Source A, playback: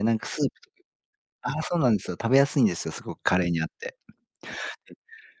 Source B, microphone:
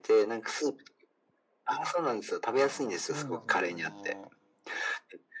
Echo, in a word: present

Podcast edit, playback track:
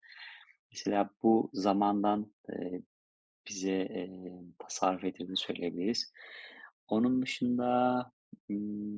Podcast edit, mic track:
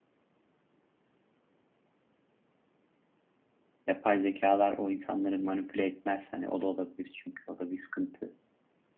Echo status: none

